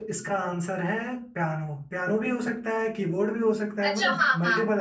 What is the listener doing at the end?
taking over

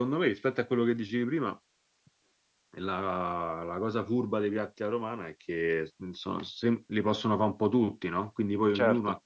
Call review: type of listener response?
listening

